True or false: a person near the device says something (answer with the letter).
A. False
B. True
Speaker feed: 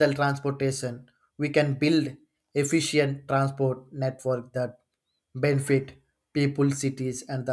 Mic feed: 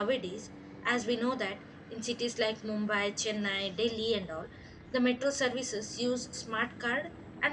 B